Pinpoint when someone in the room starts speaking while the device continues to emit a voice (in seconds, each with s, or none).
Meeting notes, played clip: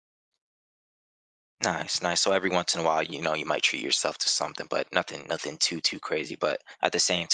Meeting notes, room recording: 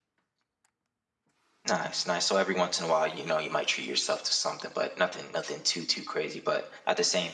none